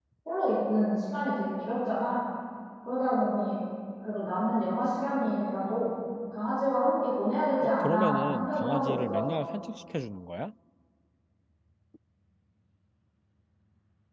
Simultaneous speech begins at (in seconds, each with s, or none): 7.6 s